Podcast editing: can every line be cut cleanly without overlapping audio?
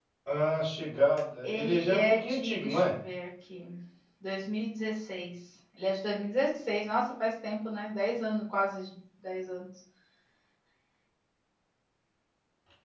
No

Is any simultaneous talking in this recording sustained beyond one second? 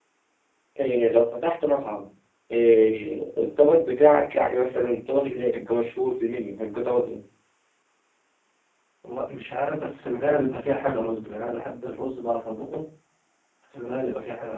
No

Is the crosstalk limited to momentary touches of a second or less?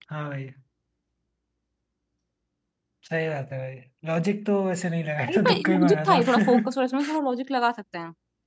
No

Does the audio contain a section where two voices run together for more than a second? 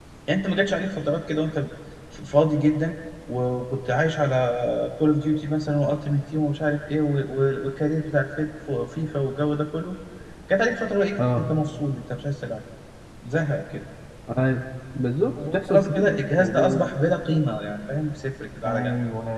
Yes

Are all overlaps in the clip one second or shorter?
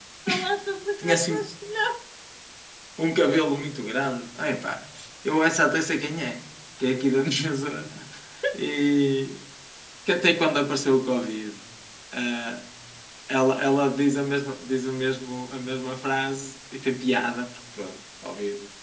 Yes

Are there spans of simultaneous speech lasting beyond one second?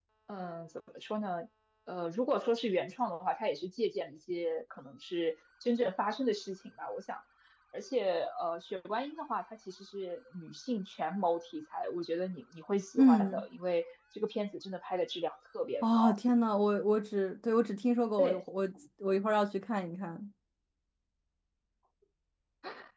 No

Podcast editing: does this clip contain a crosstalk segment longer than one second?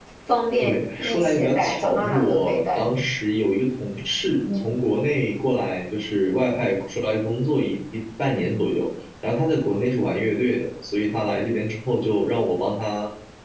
Yes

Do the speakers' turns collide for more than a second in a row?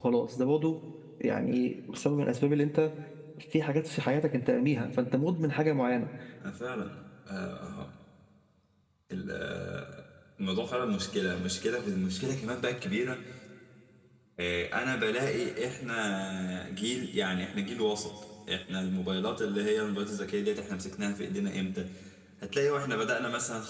No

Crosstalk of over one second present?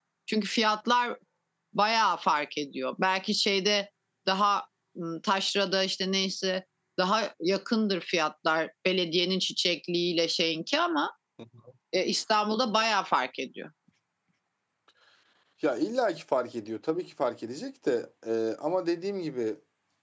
No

